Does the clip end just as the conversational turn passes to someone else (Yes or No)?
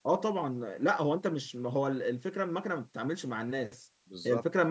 No